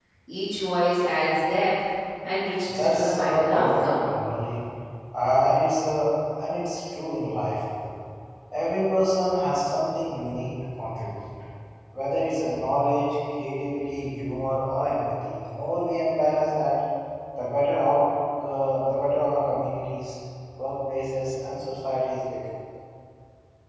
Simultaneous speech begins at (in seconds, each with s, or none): 2.7 s